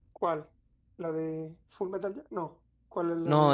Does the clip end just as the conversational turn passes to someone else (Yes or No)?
Yes